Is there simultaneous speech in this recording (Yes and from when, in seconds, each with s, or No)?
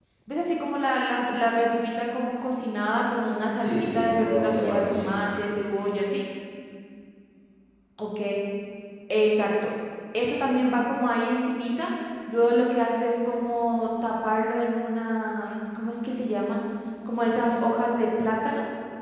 Yes, from 3.6 s